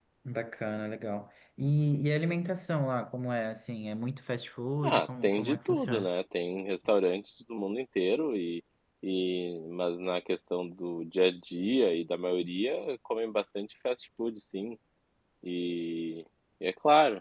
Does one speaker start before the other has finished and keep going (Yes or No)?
Yes